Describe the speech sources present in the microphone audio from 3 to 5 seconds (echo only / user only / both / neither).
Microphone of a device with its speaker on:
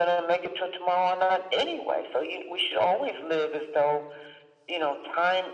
echo only